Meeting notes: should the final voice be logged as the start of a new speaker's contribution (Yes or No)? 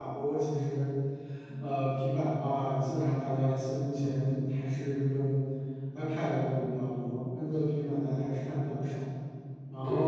Yes